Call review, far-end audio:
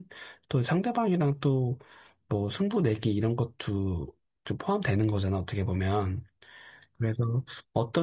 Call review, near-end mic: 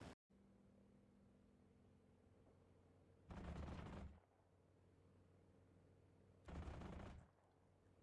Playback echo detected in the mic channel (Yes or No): No